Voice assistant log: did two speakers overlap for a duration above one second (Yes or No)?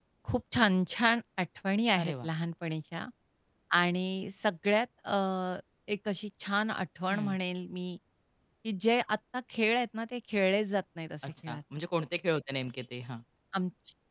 No